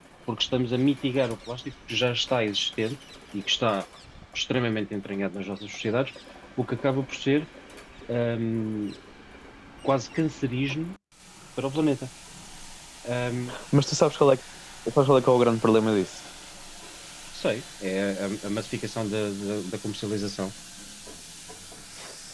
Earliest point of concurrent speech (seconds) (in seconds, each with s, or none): none